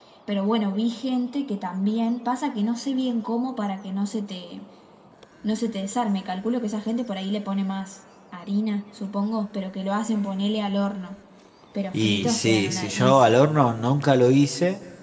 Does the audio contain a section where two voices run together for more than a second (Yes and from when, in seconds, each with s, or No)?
Yes, from 11.9 s